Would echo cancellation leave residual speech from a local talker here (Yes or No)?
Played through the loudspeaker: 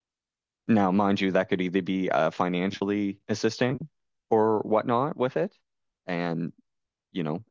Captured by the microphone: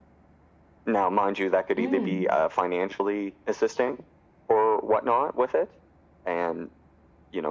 Yes